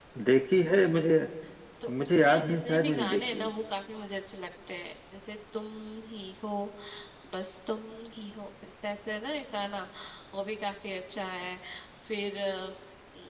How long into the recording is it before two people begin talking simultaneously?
1.9 s

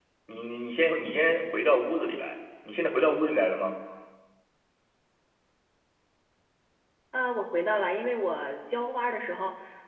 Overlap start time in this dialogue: none

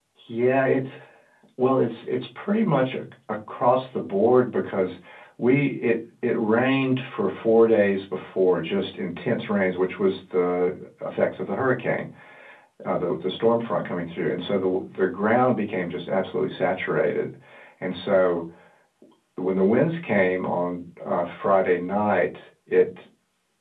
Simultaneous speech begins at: none

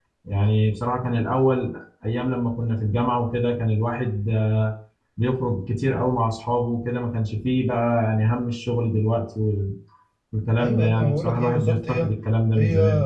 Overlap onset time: 10.6 s

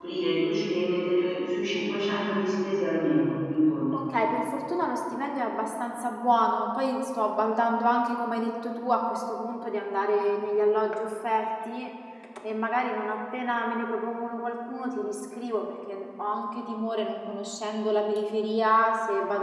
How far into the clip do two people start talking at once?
none

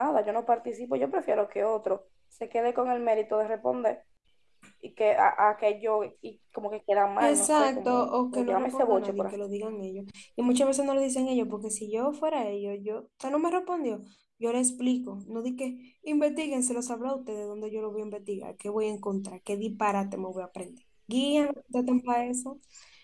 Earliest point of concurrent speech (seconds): 7.2 s

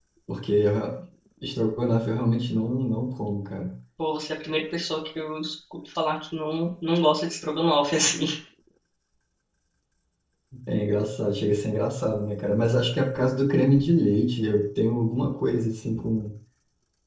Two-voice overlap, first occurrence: none

